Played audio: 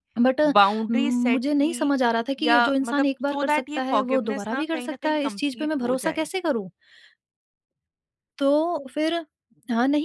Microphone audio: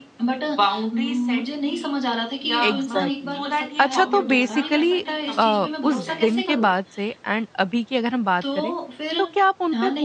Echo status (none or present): present